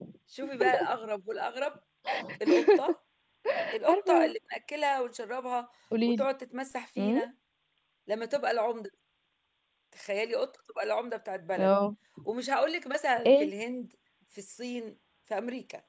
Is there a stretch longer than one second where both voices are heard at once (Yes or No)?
No